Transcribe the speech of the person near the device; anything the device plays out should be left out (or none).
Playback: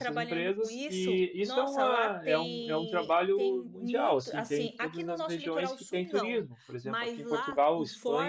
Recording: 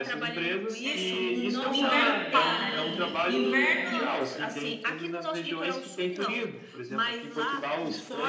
É, n- o inverno para, Aline. O inverno